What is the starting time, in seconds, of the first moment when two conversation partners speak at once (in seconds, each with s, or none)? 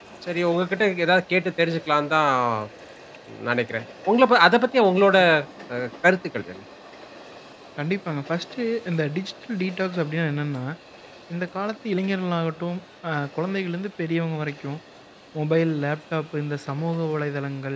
none